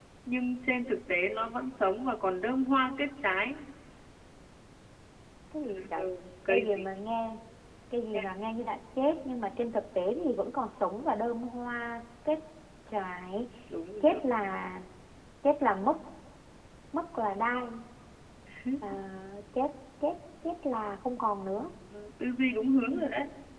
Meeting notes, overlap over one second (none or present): none